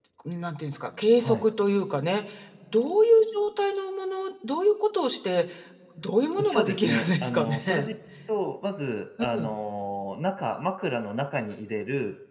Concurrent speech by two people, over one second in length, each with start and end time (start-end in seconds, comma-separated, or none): 6.3-7.9